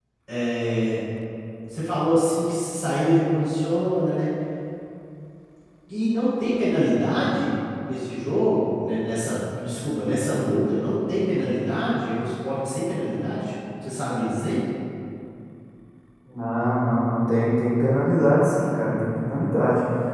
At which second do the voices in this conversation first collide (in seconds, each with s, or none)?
none